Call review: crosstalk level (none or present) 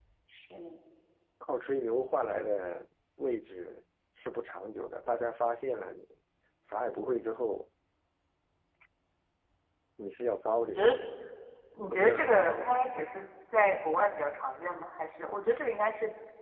present